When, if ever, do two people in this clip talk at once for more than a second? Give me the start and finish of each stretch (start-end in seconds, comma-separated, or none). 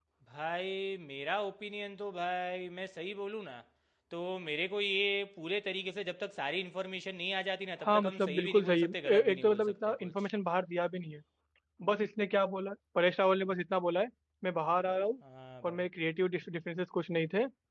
7.8-10.1